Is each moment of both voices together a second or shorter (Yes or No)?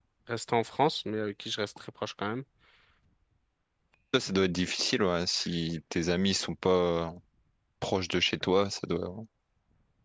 Yes